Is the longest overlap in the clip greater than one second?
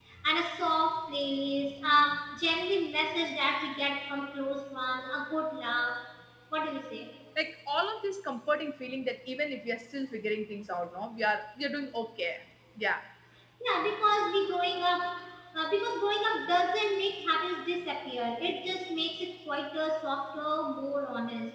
No

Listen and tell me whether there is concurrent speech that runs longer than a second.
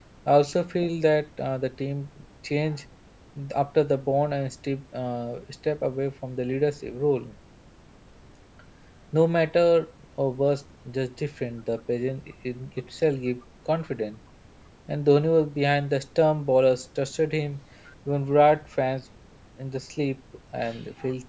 No

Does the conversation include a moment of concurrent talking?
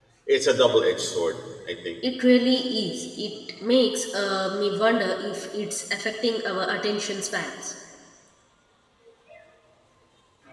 No

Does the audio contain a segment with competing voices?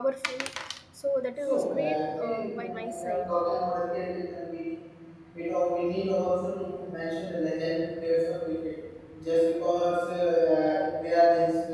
Yes, from 1.5 s

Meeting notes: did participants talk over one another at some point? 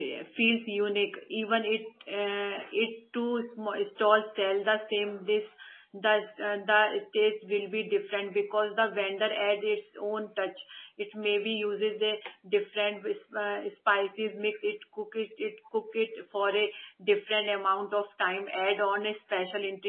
No

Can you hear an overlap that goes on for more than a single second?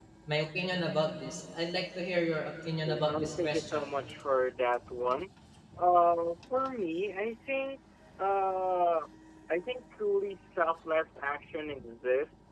Yes, from 2.8 s

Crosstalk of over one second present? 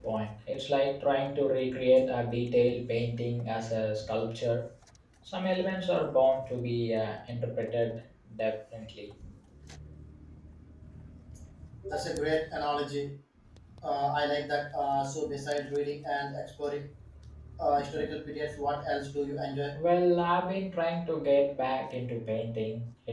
No

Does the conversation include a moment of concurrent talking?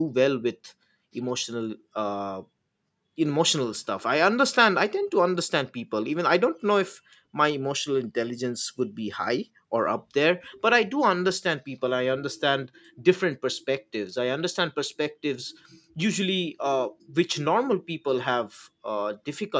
No

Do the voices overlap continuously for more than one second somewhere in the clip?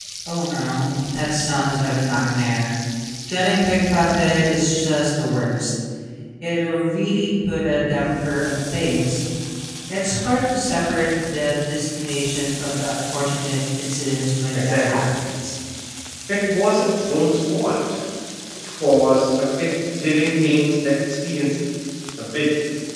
No

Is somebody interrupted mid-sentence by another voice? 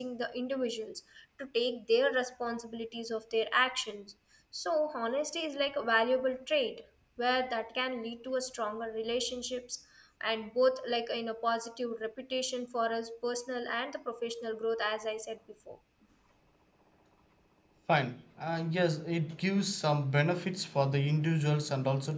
No

